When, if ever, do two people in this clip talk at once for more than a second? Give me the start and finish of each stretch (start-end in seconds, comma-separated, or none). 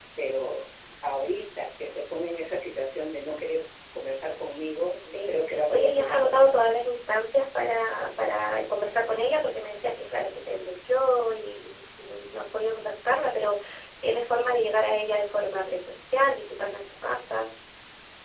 5.2-6.5